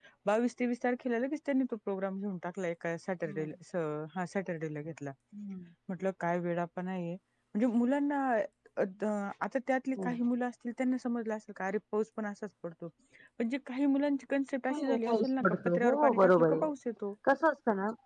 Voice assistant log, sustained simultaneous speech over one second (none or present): present